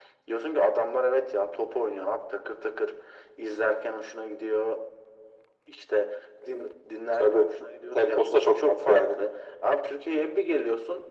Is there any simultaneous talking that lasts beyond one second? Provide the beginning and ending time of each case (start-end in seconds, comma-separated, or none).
7.9-9.2